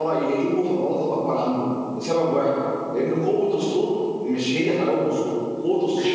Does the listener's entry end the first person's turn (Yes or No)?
No